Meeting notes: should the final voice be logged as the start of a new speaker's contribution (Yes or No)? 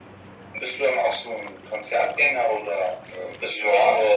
Yes